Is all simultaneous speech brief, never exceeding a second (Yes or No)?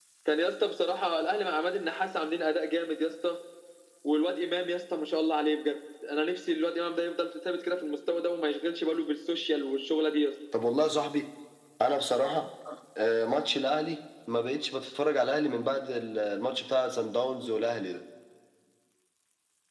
Yes